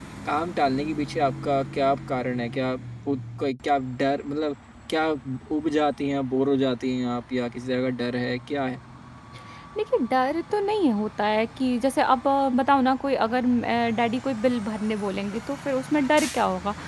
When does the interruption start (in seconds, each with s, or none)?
none